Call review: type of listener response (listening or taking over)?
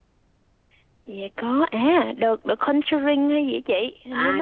taking over